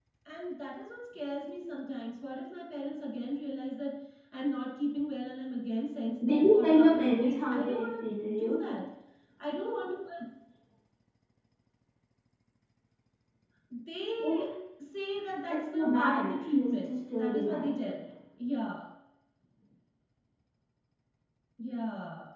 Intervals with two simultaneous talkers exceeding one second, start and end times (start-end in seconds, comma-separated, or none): 6.2-8.7, 15.5-17.8